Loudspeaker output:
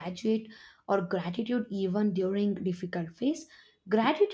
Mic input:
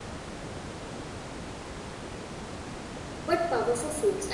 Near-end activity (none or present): present